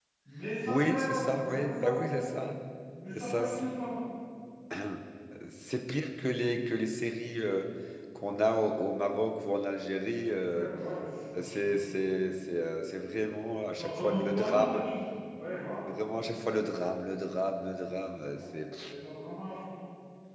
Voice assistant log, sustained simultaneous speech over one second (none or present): present